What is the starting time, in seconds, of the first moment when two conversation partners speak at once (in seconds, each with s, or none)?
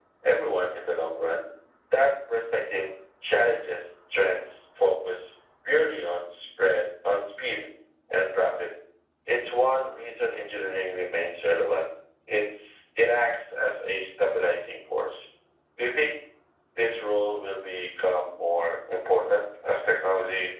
none